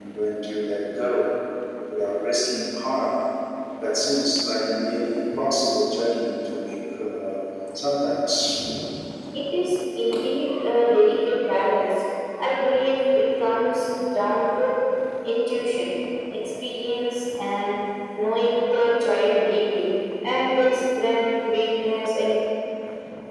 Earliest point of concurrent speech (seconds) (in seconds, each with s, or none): none